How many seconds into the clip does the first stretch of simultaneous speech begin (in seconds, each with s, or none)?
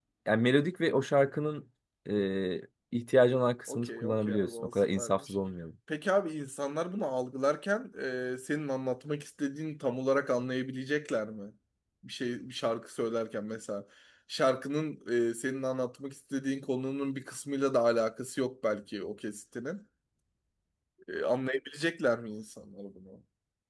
3.7 s